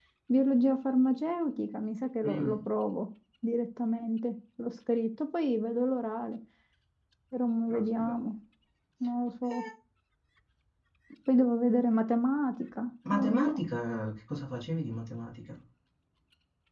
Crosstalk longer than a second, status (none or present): none